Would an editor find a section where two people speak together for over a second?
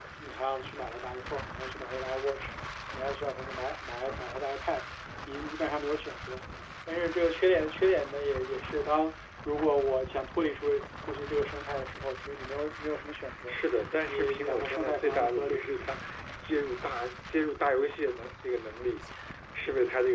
Yes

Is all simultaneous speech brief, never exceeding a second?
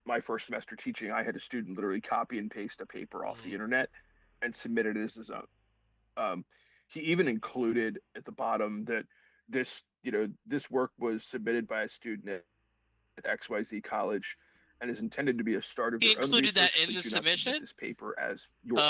No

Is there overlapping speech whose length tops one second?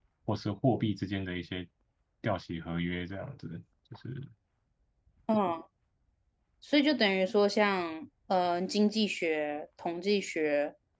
No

